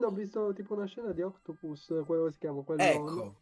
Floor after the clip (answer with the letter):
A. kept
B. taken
B